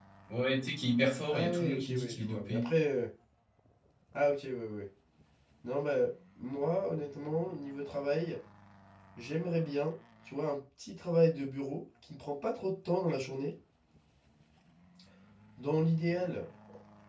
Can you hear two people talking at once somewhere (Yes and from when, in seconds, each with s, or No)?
Yes, from 1.3 s